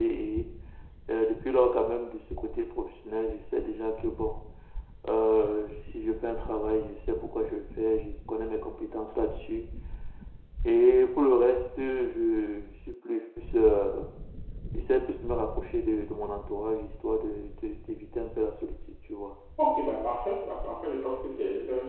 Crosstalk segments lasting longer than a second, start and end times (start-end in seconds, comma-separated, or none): none